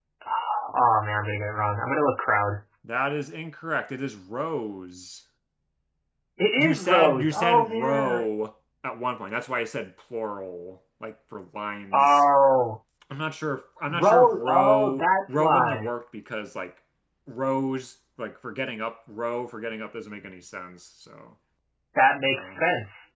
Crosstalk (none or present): present